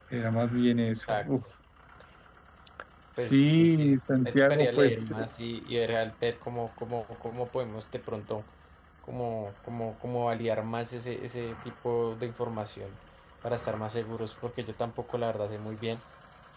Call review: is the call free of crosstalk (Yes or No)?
No